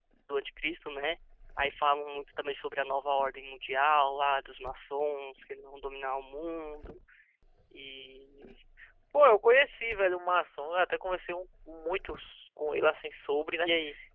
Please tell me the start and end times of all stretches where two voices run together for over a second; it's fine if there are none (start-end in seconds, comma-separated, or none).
none